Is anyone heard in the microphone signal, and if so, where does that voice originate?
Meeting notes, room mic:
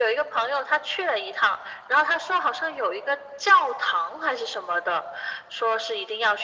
echo only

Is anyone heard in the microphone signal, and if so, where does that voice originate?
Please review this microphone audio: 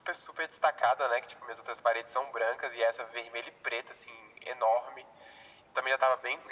echo only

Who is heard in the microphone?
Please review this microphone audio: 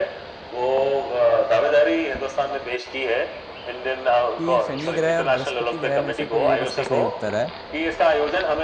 both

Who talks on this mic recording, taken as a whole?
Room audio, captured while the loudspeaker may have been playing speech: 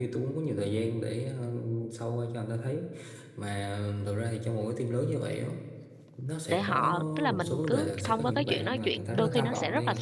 both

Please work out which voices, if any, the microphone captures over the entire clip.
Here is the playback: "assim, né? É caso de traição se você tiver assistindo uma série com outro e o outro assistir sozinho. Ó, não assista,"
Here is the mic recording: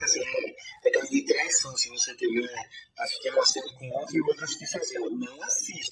echo only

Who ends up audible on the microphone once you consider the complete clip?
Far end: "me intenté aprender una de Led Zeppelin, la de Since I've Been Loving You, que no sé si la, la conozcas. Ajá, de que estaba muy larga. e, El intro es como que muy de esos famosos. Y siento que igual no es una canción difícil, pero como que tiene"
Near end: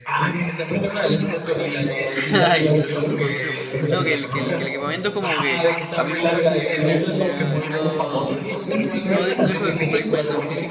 both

